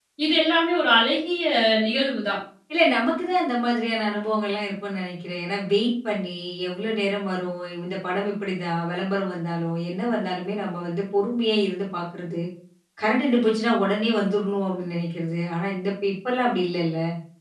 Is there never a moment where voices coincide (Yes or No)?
Yes